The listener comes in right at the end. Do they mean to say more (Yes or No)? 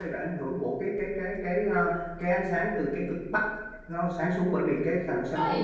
Yes